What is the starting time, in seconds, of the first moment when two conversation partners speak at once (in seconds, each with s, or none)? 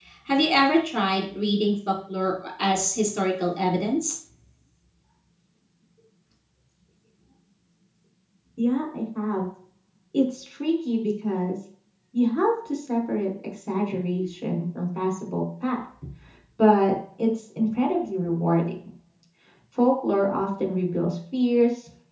none